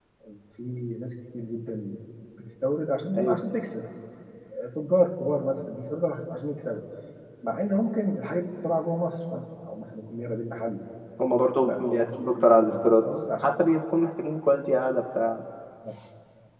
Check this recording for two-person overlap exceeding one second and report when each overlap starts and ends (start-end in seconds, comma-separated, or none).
11.6-13.1